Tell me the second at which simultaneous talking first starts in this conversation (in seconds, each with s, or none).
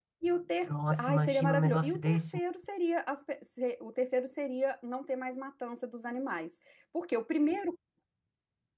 0.7 s